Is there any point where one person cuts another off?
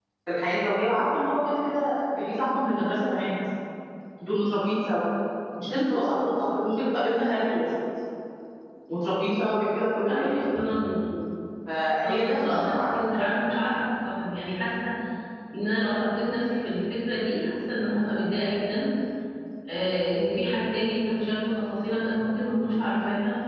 Yes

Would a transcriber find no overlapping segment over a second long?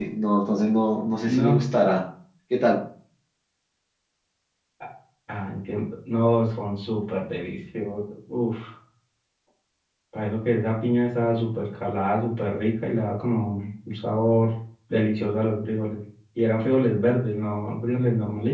Yes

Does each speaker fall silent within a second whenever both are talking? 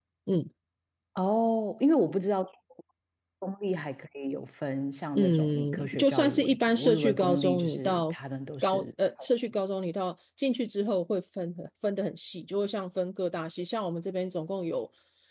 No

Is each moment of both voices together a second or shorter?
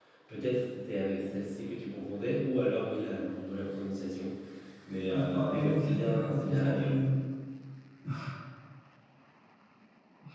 No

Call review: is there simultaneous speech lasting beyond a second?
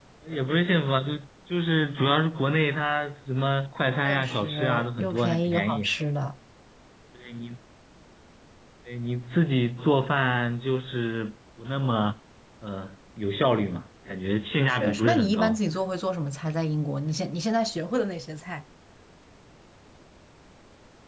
Yes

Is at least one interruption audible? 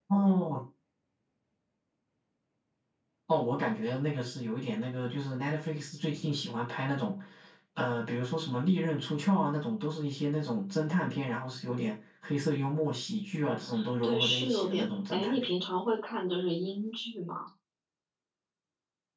Yes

